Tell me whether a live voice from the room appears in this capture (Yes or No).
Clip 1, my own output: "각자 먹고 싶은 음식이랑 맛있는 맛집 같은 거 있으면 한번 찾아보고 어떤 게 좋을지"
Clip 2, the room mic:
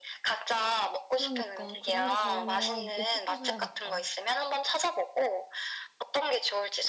Yes